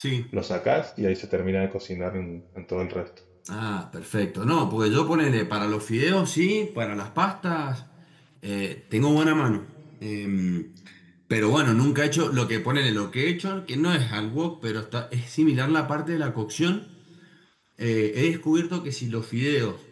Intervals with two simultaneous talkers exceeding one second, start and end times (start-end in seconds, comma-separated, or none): none